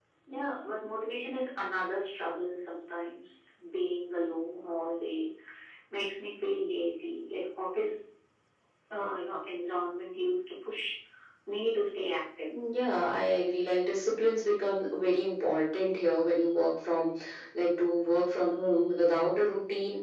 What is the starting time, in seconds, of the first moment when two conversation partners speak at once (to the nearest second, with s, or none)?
none